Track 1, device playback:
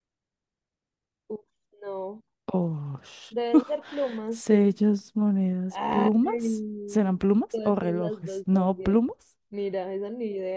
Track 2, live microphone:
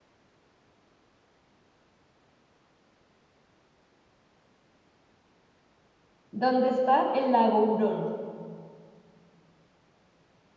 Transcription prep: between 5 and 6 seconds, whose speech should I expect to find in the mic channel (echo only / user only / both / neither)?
neither